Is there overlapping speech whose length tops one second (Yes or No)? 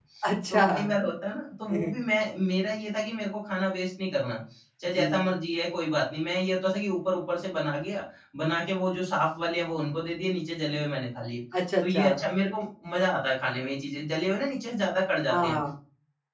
No